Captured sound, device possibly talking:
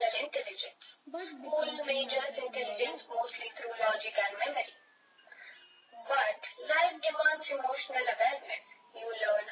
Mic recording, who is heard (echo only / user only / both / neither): both